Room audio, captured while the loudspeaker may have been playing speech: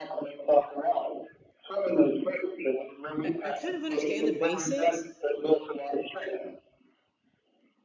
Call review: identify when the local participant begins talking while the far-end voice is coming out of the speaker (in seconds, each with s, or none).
3.2 s